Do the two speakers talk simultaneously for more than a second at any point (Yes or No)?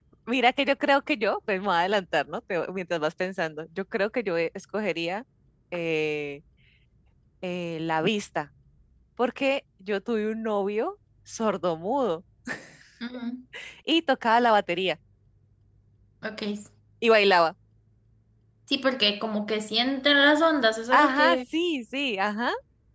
No